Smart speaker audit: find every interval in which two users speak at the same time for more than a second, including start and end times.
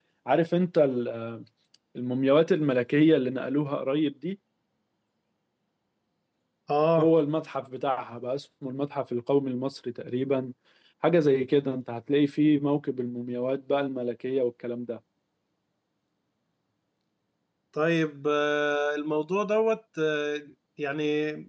none

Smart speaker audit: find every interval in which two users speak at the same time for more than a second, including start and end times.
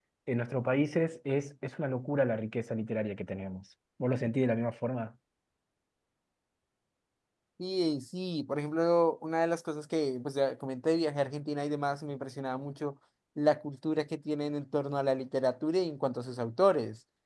none

